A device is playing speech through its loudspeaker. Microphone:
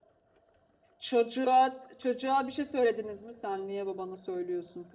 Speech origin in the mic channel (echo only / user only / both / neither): user only